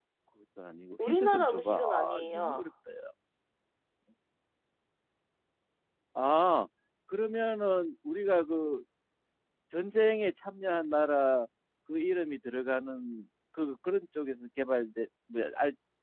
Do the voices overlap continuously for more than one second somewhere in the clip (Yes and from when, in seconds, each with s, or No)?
Yes, from 1.1 s